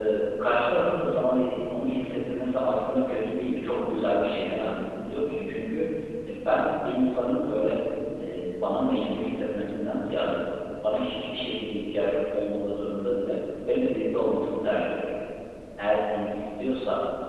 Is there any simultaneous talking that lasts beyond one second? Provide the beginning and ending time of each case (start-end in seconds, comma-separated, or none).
none